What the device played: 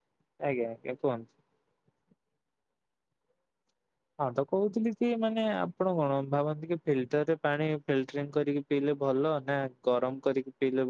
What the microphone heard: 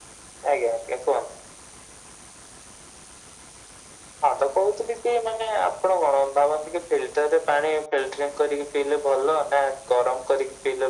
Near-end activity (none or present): none